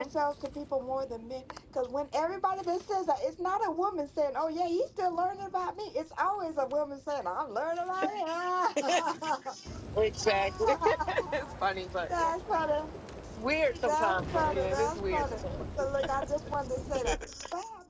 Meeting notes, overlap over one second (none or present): present